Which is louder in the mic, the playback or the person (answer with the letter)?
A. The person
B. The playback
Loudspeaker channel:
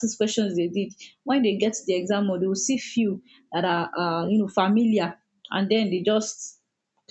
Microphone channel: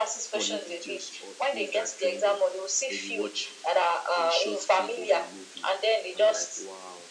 B